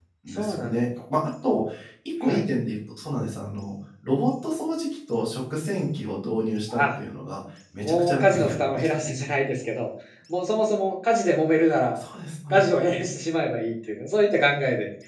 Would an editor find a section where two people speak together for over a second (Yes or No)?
Yes